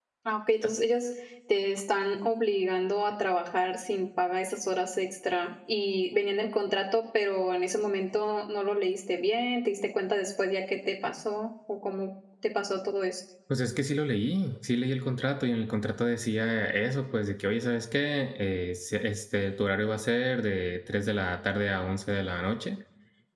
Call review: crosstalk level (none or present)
none